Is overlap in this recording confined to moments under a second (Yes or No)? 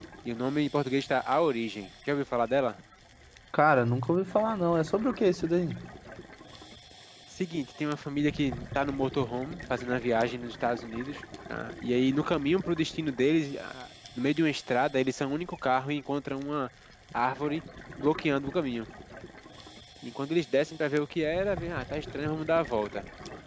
Yes